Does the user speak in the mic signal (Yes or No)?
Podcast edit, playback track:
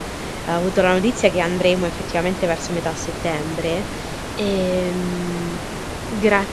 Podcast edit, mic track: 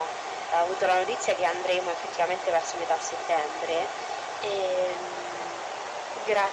No